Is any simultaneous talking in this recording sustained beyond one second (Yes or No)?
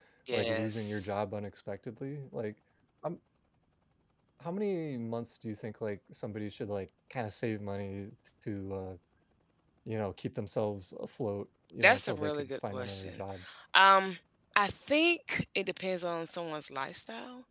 Yes